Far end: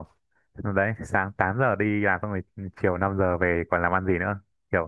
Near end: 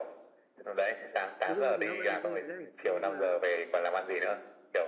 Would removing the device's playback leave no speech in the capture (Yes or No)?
No